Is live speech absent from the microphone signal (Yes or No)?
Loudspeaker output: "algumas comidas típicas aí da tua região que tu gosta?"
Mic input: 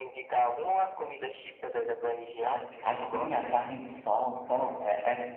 No